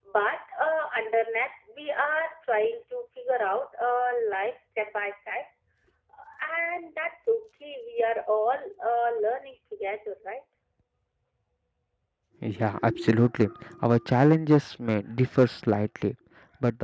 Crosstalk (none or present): none